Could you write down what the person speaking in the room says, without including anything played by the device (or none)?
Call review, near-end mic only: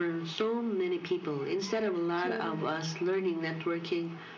Totally.